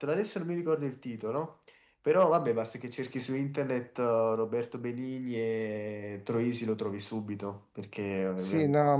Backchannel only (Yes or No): No